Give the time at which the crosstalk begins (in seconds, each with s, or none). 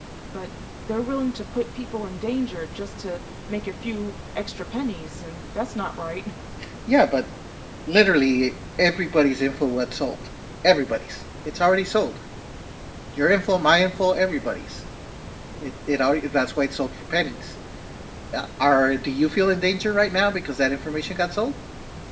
none